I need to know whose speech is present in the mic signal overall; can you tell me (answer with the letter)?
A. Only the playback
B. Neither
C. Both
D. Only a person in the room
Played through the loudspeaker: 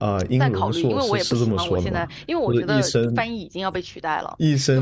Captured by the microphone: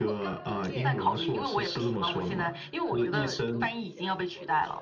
C